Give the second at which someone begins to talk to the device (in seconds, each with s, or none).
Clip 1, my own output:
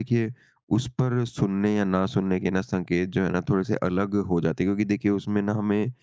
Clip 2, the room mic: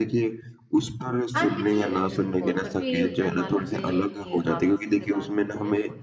1.3 s